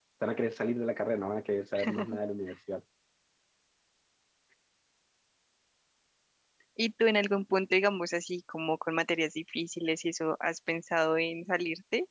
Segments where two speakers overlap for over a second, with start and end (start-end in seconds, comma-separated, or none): none